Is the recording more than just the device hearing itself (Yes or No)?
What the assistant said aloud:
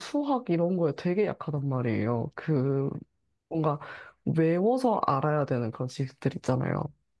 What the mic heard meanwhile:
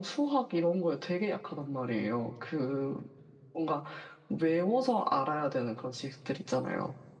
No